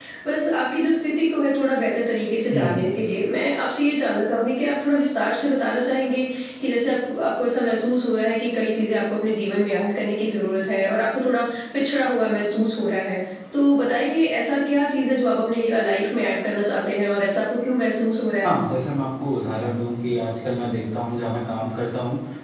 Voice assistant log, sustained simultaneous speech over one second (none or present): none